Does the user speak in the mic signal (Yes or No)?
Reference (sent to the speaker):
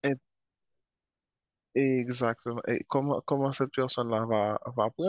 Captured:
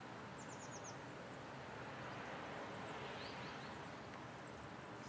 No